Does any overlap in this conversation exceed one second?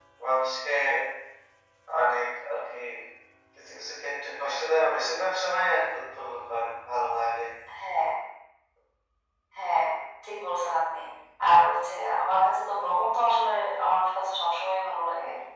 No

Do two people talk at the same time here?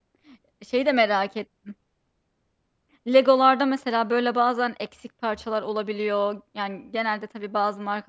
No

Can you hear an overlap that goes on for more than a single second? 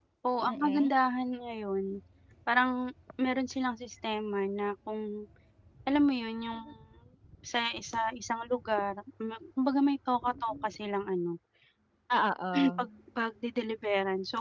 No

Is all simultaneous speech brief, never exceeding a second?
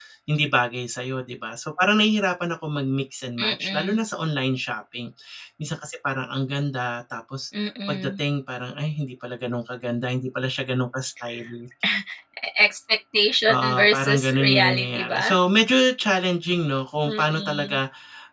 No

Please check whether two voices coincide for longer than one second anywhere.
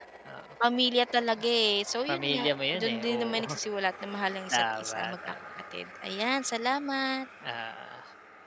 Yes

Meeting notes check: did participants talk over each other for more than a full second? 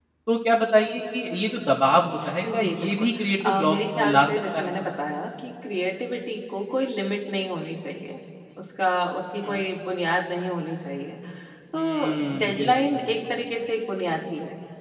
Yes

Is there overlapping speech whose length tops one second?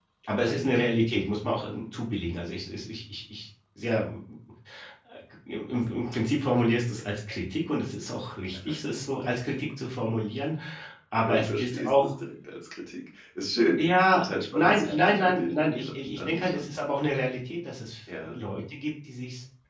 Yes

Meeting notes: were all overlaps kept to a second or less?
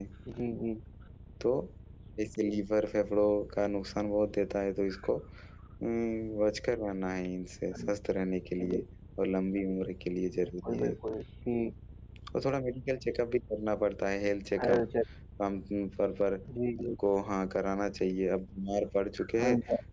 Yes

